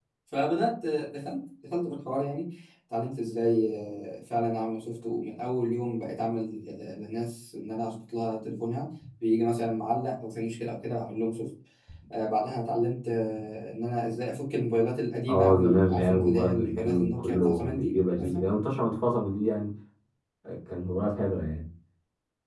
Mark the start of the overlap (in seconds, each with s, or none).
15.3 s